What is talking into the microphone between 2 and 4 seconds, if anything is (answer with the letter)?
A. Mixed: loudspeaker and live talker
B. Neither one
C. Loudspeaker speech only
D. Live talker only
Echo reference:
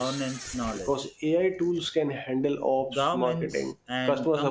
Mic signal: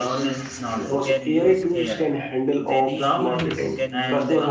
A